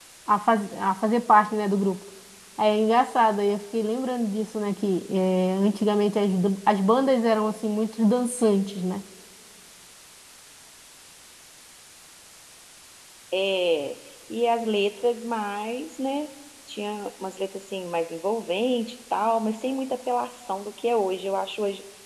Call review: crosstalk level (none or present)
none